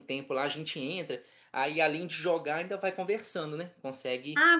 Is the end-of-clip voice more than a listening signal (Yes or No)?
Yes